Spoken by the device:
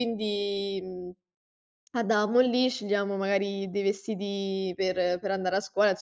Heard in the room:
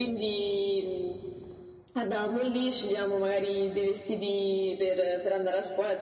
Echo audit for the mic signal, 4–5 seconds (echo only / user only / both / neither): echo only